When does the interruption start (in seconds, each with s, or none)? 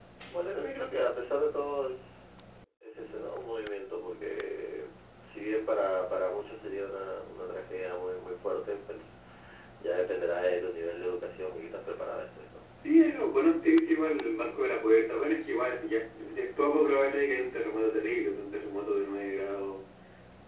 none